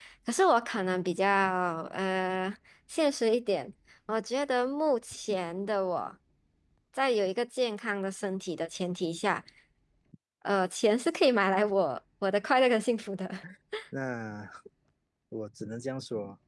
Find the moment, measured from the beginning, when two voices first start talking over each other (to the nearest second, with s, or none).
none